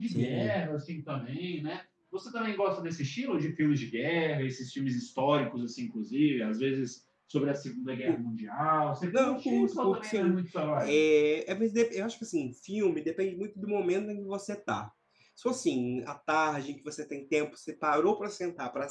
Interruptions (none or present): present